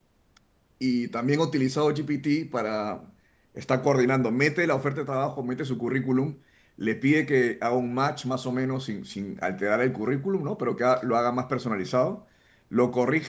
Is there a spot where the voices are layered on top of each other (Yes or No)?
No